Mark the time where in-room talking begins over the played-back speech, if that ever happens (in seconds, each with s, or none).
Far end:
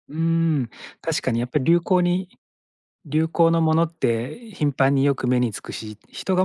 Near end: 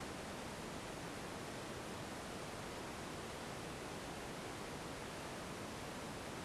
none